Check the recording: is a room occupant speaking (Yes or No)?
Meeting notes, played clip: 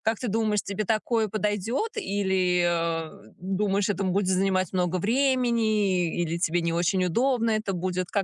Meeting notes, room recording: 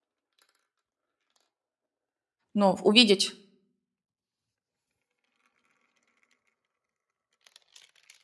Yes